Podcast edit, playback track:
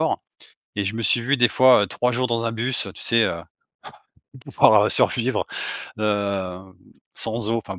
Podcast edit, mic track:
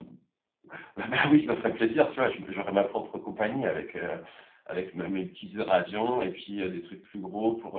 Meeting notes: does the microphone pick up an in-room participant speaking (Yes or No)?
Yes